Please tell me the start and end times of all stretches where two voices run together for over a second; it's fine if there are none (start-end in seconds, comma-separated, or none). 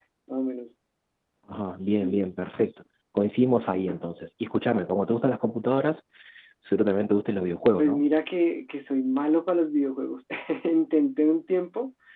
none